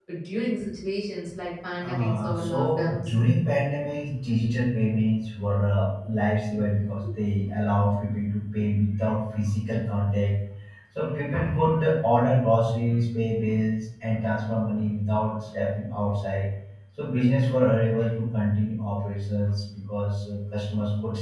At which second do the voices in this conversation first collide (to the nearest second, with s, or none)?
2 s